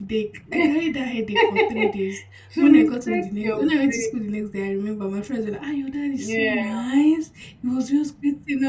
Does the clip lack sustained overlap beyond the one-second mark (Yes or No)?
No